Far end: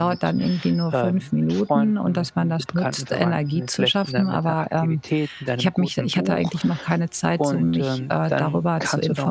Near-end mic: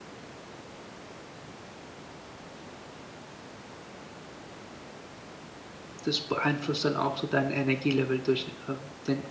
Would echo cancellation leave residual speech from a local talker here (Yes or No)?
Yes